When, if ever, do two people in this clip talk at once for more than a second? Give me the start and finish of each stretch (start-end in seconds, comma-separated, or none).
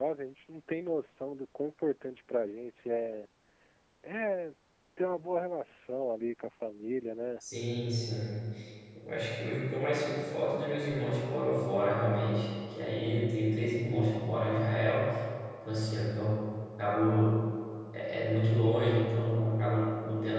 none